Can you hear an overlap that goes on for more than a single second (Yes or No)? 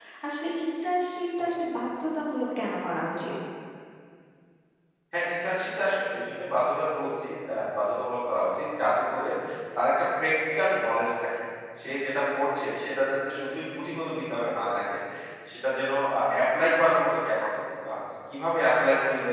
No